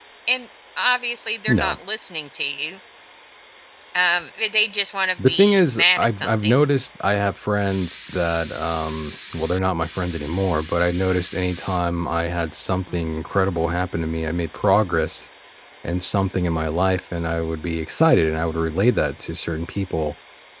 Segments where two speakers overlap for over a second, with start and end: 5.3-6.6

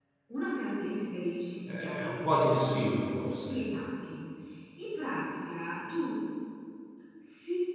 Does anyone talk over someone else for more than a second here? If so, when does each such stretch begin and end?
1.7-3.6

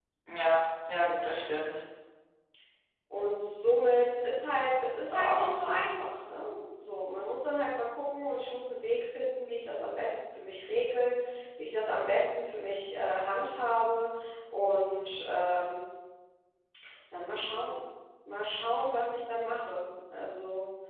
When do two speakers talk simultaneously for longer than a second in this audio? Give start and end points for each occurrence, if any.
none

